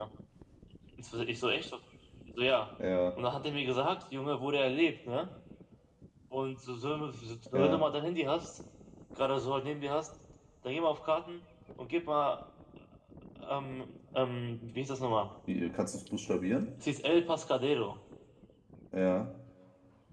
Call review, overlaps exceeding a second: none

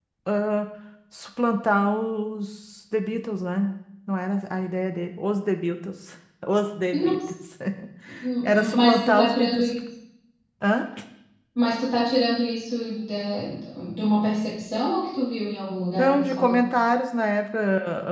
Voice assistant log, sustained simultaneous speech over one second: present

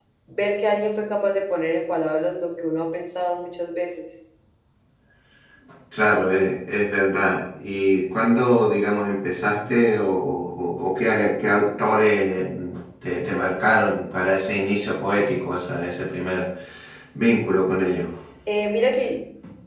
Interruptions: none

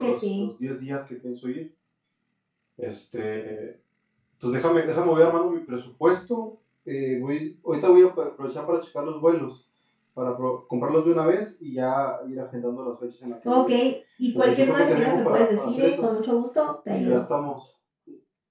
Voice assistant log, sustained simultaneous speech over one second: present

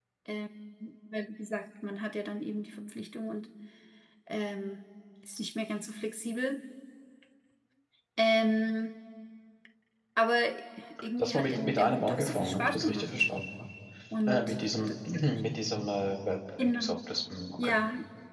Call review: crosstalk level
present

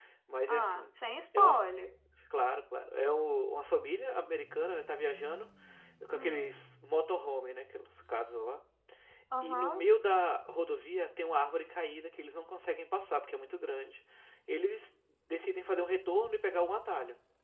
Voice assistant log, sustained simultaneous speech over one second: none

